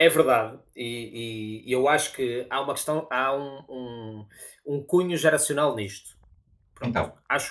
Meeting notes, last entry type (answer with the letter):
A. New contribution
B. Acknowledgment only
B